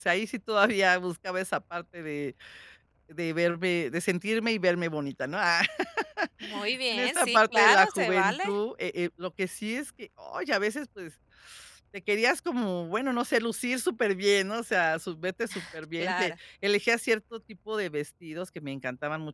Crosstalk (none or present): present